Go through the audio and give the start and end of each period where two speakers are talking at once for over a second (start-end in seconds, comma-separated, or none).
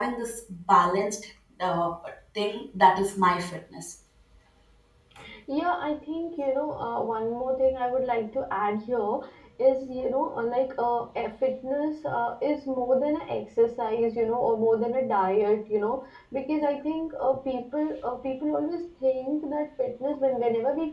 none